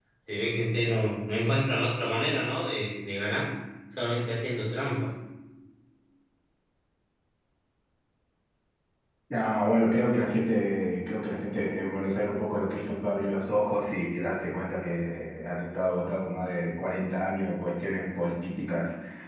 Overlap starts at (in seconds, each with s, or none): none